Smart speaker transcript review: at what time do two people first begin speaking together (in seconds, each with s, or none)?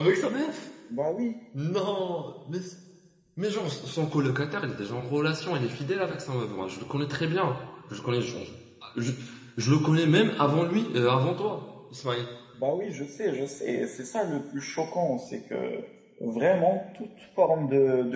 none